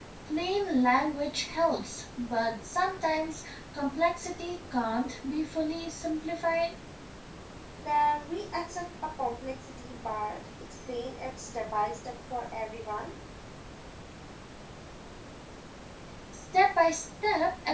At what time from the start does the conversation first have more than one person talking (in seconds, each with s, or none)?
none